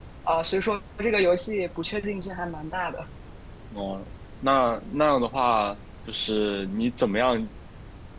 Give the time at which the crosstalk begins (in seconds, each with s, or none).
none